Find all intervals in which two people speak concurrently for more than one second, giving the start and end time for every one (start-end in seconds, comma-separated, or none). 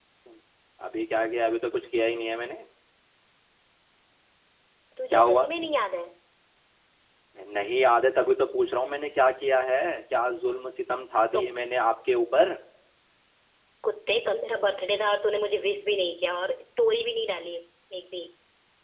none